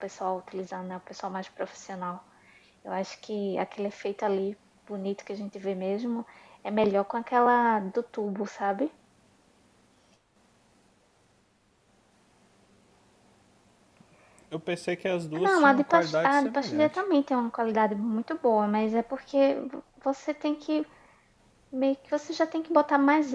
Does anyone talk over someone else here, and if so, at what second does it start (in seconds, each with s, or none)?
15.4 s